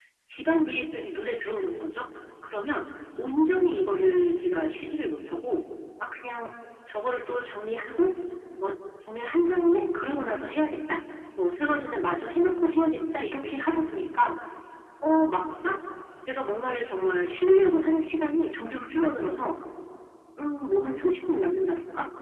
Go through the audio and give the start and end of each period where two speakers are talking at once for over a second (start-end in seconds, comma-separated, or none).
none